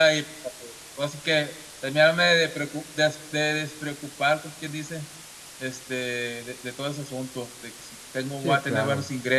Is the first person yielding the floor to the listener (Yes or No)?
No